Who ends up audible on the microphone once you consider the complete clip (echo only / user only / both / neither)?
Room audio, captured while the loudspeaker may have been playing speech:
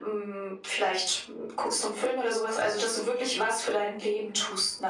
echo only